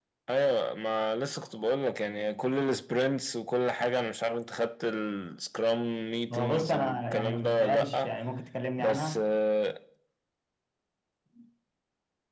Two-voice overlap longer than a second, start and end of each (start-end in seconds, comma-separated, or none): 6.3-8.1